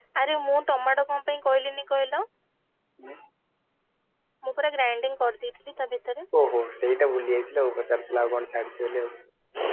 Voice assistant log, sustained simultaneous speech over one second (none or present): none